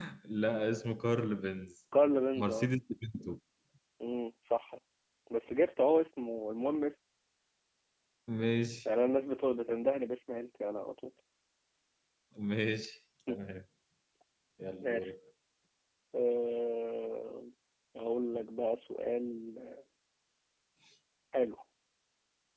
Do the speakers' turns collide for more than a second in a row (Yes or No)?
No